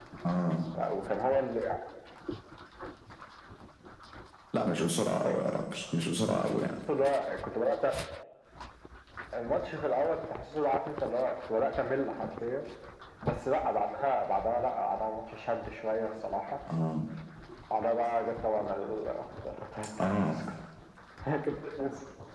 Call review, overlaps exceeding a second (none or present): none